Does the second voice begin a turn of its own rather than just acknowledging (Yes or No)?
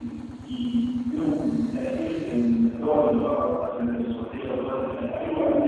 Yes